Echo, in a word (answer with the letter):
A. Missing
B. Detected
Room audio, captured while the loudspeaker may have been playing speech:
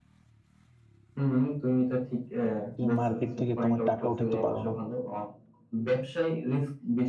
B